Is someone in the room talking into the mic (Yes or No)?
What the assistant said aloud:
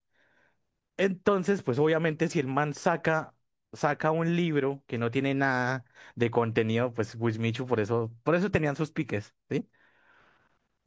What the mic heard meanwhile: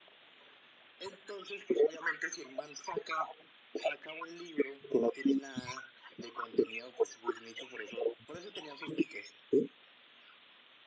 No